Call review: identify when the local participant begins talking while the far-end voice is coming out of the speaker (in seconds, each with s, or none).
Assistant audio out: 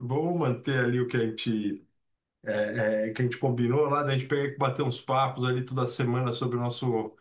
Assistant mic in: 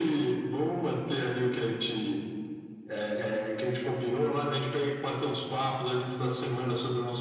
none